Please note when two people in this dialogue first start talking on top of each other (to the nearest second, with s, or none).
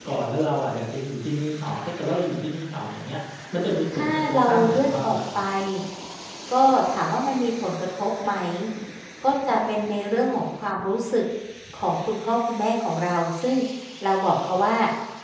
4 s